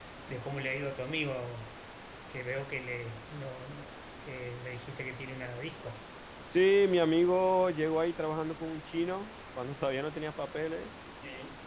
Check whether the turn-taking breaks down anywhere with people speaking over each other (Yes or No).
No